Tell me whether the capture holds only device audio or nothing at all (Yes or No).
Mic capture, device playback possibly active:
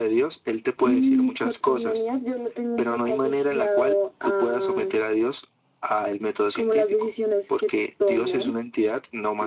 Yes